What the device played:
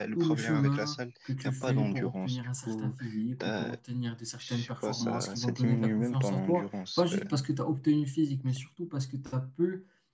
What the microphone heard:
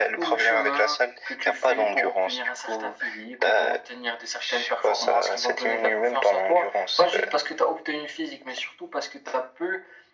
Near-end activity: none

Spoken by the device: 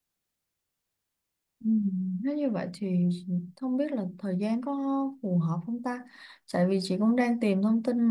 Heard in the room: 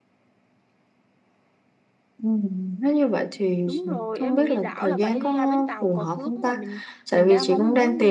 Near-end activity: present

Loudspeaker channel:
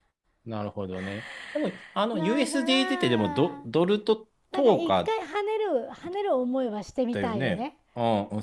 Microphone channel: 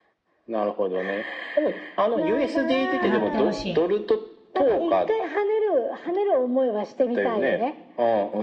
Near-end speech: present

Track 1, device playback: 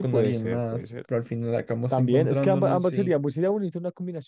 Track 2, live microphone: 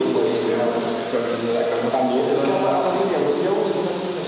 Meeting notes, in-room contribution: none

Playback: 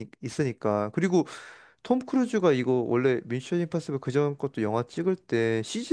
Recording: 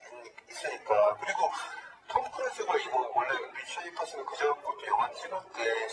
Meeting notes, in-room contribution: none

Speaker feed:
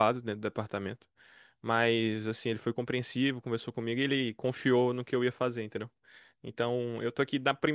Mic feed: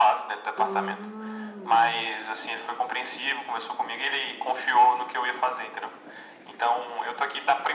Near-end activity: present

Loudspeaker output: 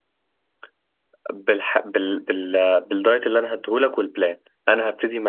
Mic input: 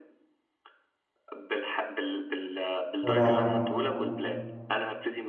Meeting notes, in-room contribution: present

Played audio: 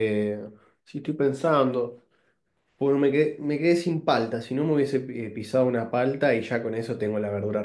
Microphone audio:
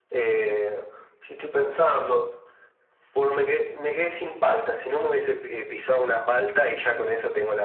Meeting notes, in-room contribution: none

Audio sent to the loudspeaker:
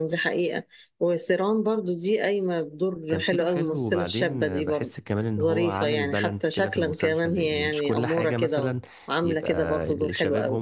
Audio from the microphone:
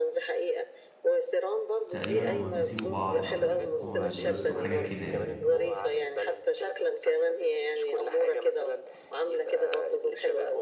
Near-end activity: present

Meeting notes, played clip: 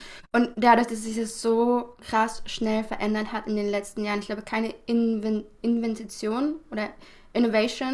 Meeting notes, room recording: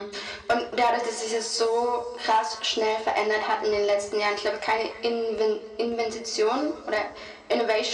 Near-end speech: none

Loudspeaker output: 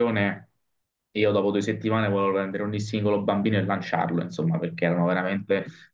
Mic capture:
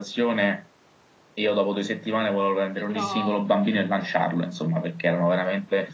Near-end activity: present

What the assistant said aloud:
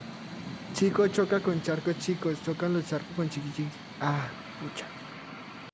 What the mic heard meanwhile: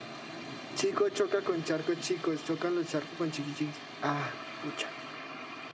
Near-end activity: none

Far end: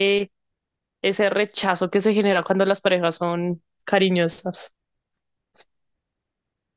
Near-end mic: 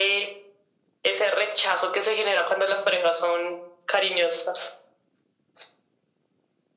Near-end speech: none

